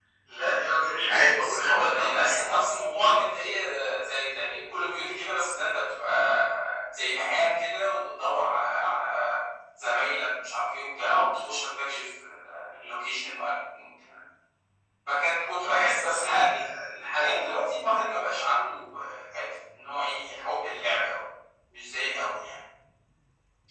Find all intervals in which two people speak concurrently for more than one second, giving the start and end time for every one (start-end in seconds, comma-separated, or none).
0.9-2.4